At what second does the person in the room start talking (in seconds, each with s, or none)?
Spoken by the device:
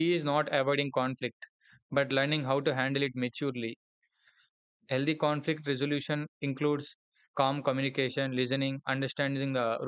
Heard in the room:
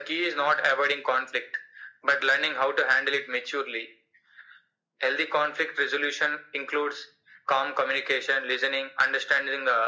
none